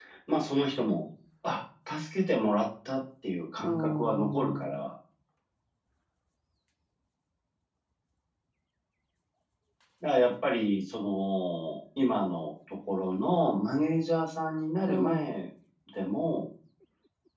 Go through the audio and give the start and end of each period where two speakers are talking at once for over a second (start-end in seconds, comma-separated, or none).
3.6-4.8